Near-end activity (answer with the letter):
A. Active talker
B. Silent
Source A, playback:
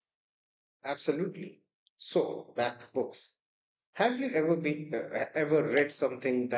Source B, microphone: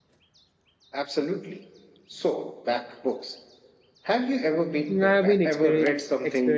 A